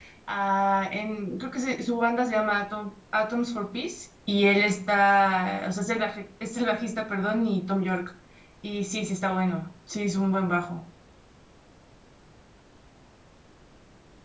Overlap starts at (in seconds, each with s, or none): none